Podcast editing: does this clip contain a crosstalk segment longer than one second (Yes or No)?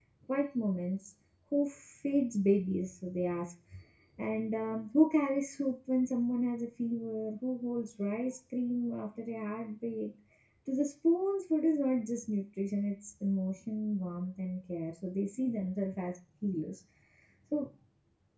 No